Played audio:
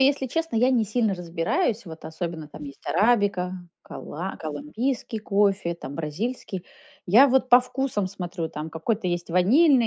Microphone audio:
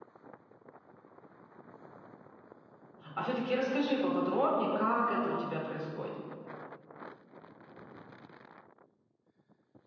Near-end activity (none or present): present